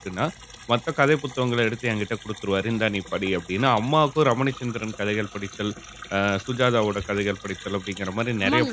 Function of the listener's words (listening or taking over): taking over